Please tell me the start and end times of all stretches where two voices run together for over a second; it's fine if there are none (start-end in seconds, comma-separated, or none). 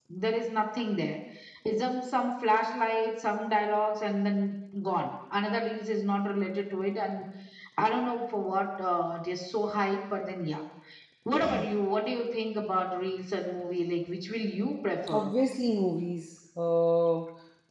none